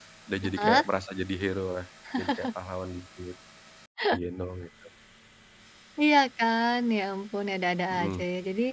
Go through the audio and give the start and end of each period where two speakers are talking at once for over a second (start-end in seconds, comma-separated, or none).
none